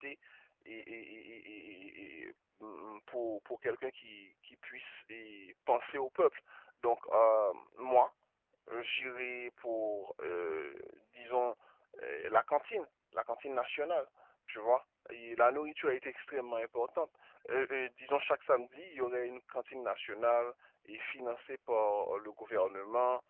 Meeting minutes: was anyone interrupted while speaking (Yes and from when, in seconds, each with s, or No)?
No